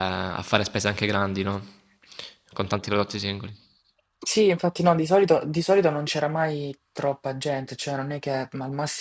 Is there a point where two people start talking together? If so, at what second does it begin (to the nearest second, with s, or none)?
none